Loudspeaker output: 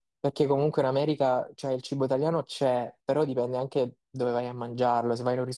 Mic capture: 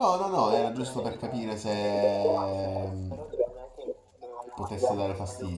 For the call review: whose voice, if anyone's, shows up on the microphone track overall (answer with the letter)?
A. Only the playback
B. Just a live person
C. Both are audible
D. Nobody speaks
C